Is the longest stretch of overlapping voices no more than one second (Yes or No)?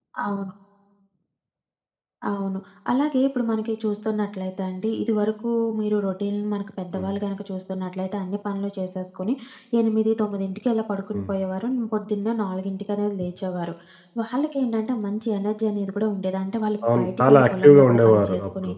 No